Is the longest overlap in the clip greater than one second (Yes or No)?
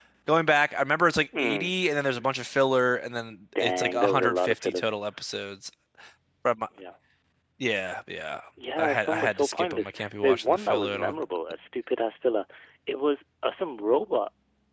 Yes